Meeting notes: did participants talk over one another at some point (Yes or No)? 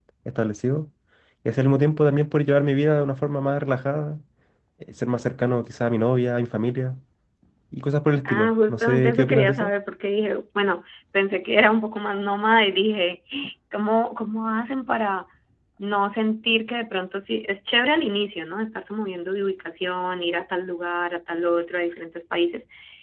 Yes